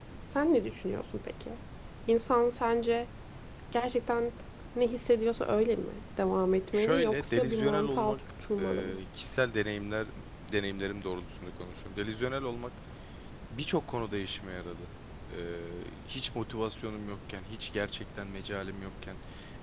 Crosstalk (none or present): present